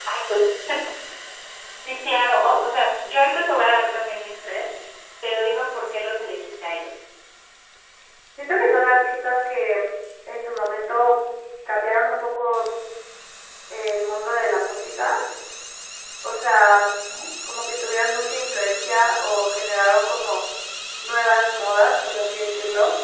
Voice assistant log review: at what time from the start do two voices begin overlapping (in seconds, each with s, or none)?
none